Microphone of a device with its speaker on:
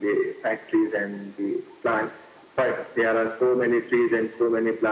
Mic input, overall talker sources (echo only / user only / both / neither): echo only